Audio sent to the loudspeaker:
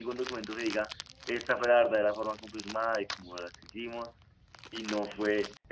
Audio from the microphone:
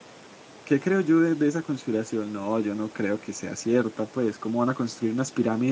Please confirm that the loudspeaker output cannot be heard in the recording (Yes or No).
Yes